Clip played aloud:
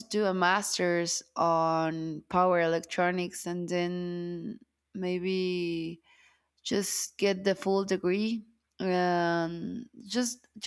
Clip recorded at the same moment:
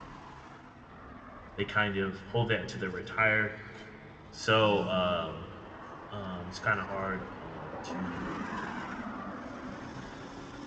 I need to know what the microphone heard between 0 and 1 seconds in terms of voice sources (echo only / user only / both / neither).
neither